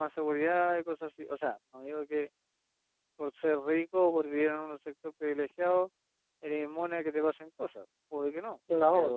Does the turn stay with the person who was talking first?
Yes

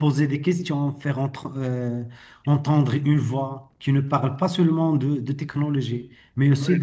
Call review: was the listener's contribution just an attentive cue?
Yes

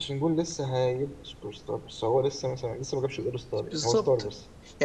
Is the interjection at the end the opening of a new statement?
Yes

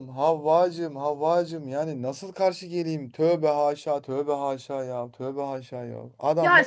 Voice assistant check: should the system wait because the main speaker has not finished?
No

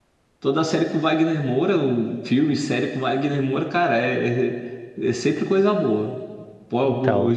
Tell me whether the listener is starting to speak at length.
Yes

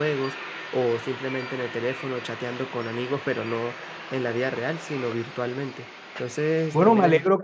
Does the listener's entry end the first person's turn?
Yes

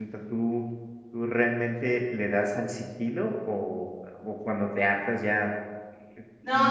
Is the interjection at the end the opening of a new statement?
Yes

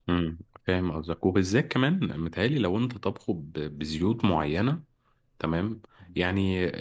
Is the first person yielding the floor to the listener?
No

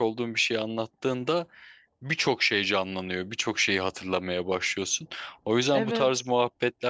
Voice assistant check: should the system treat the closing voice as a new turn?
No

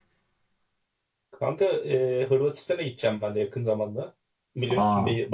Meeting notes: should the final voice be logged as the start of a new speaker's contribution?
No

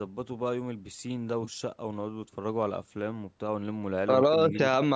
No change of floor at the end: No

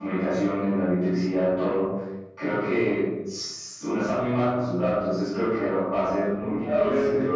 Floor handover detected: Yes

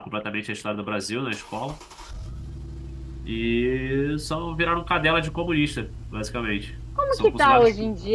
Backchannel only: No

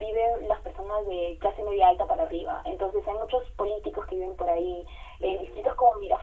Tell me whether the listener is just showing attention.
Yes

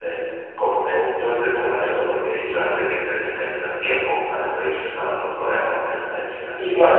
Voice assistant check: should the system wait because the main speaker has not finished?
Yes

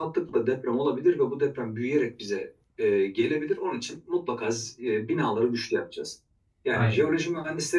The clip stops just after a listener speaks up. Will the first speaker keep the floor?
Yes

